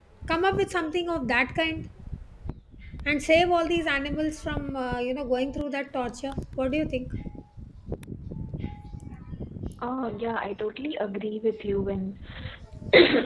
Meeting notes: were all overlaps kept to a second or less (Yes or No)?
Yes